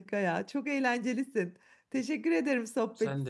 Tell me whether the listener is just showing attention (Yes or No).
Yes